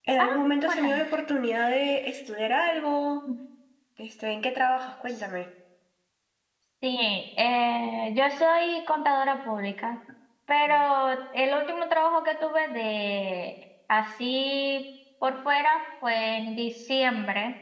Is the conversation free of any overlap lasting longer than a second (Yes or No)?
Yes